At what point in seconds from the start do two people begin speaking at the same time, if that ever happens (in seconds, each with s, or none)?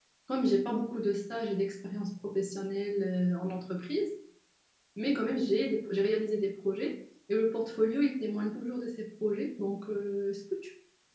none